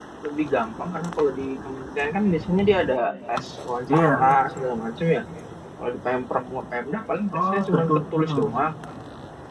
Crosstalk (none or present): present